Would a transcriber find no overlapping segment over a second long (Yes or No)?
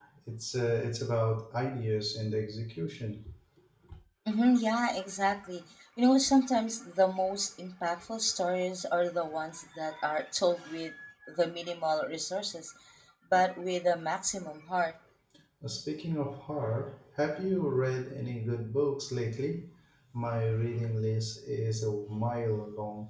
Yes